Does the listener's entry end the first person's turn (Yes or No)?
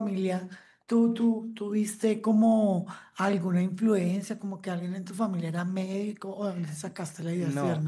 Yes